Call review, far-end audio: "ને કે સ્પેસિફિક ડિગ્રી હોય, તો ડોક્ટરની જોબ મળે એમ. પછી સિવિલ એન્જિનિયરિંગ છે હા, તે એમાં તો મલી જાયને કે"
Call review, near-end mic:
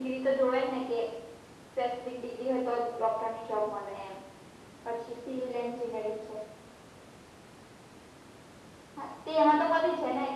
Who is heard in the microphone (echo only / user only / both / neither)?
echo only